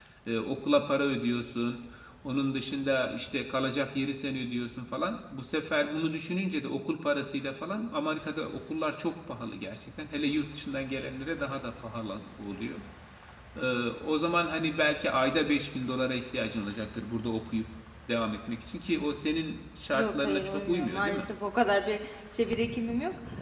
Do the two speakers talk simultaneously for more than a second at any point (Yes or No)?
Yes